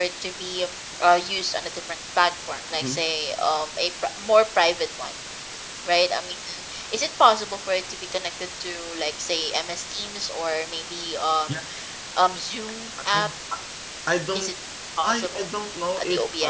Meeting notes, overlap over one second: none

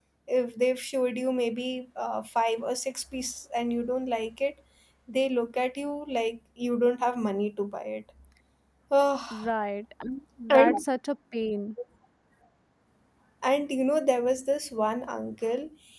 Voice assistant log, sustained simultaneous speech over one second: none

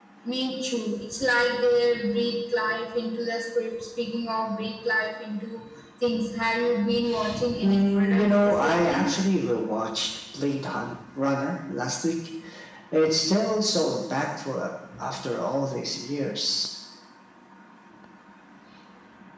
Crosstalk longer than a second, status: present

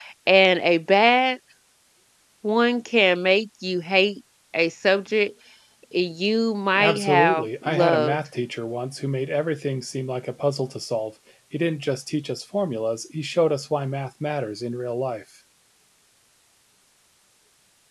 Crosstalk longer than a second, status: present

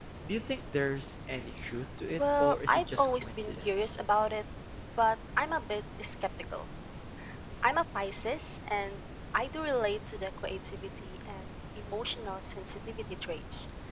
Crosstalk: present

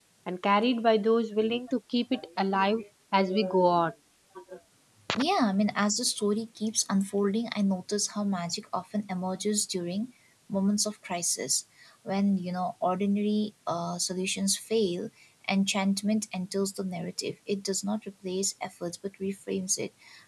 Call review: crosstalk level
none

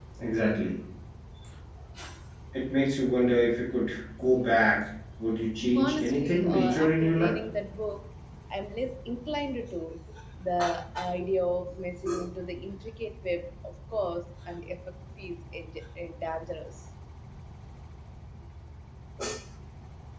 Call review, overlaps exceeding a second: present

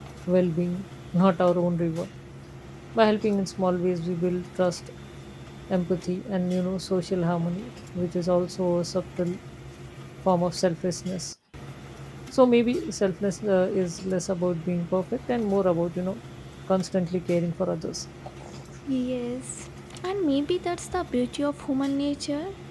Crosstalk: none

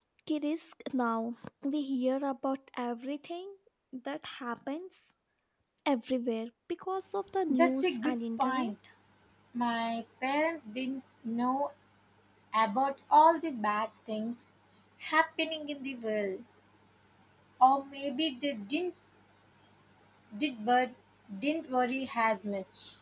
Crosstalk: present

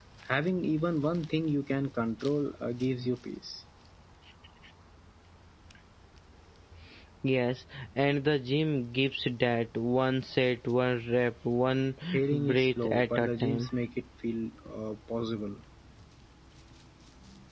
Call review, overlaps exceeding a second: present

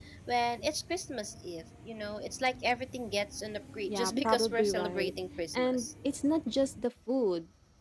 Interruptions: present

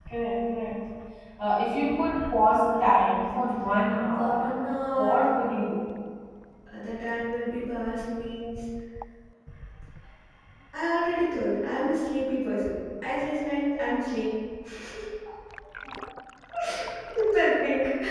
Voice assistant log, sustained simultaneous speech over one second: none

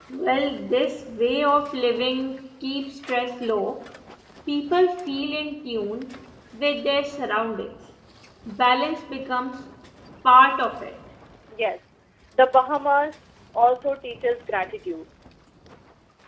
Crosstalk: none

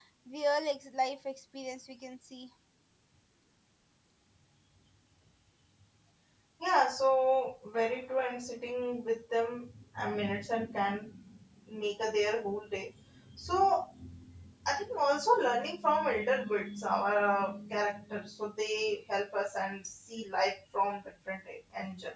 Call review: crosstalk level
none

